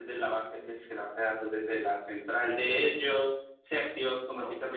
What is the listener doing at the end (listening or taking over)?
listening